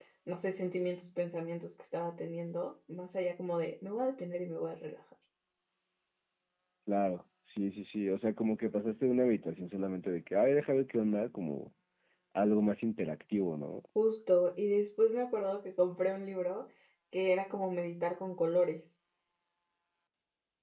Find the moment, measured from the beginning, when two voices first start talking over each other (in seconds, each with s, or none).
none